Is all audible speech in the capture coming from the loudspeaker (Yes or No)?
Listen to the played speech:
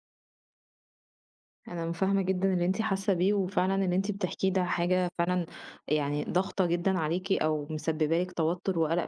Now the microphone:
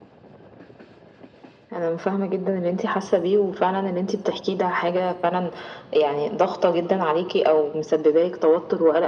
Yes